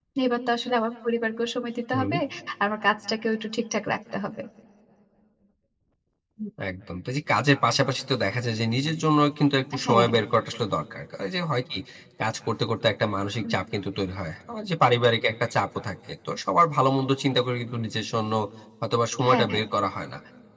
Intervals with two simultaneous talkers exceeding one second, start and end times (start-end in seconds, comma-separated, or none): none